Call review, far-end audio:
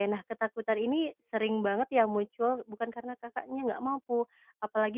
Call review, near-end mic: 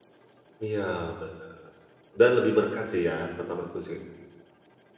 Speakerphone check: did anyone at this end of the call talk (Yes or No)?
Yes